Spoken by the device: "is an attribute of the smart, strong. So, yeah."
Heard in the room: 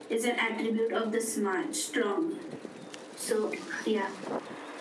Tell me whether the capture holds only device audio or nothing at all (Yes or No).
Yes